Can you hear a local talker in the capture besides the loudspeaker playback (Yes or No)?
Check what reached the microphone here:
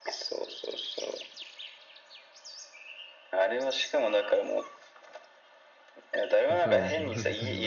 Yes